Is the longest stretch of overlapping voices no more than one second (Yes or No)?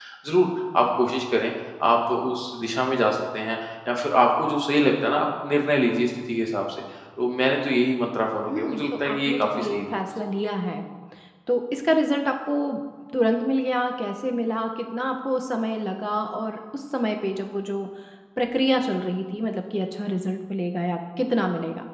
No